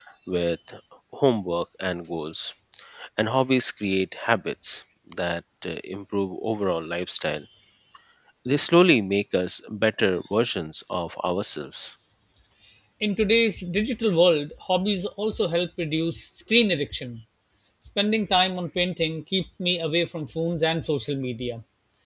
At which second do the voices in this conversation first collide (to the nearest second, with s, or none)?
none